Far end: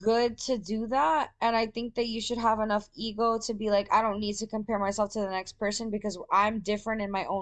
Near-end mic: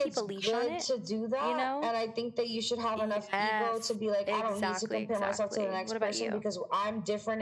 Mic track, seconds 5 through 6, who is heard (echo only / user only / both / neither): both